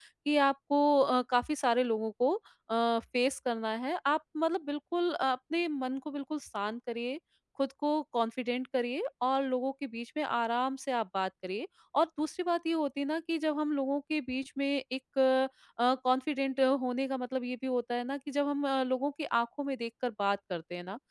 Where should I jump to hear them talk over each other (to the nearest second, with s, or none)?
none